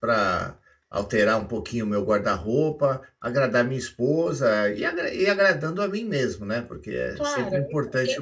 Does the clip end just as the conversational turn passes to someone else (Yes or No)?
Yes